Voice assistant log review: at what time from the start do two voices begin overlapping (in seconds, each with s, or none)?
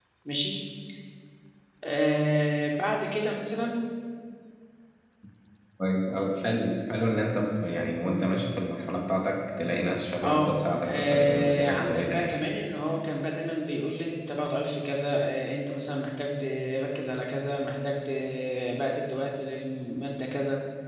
10.2 s